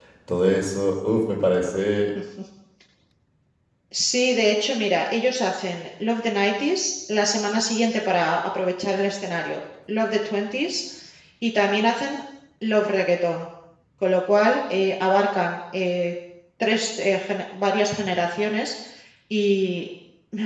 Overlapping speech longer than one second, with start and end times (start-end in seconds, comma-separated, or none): none